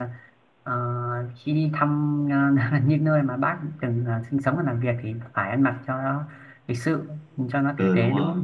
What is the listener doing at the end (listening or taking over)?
taking over